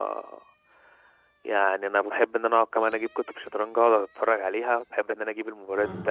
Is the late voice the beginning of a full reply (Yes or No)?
No